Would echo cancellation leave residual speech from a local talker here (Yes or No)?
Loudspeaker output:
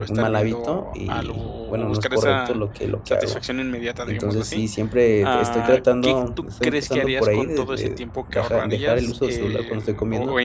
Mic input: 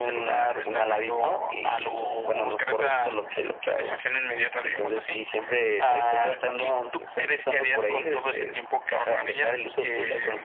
No